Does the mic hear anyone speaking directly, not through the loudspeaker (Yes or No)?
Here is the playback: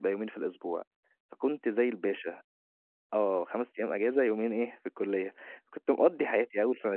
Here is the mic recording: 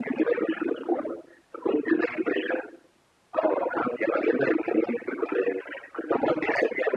No